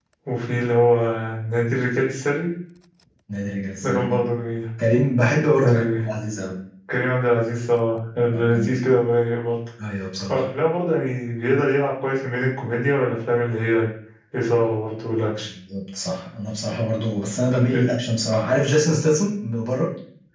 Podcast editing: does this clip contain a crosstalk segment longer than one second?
No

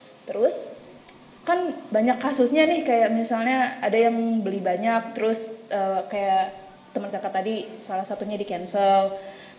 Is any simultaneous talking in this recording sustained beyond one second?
No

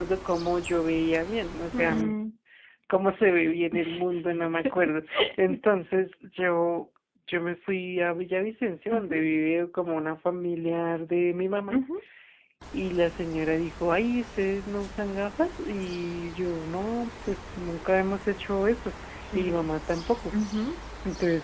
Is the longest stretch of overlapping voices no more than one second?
Yes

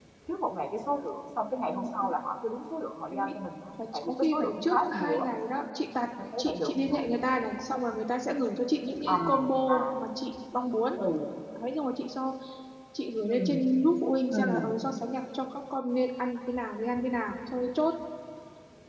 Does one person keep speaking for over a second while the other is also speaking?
Yes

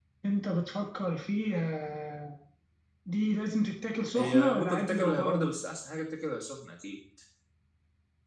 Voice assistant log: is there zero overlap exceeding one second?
No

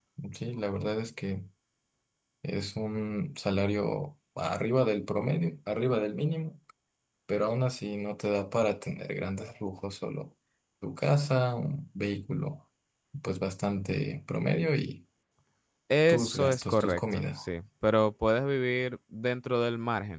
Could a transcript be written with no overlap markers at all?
No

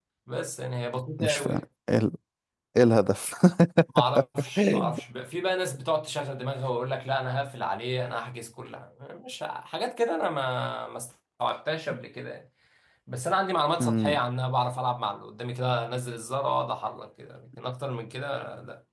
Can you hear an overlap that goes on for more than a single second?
No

